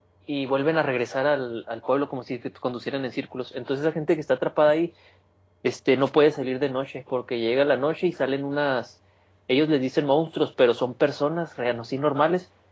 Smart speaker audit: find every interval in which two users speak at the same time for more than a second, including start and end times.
none

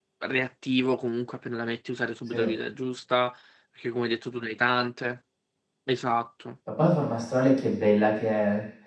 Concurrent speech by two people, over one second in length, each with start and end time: none

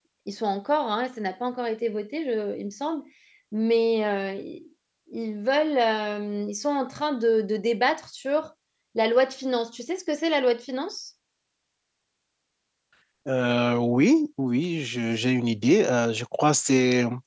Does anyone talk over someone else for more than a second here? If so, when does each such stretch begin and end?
none

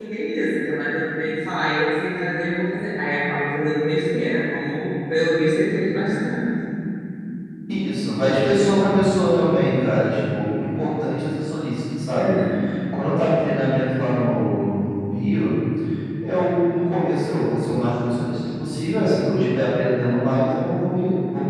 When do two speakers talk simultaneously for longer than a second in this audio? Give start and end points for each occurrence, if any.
none

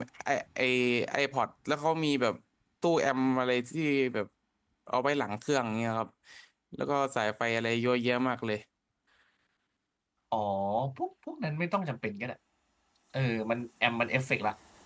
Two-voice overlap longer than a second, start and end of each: none

